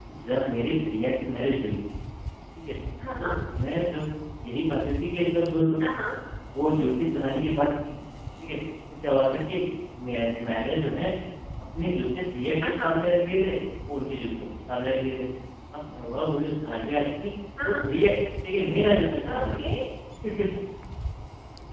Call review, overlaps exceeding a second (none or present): none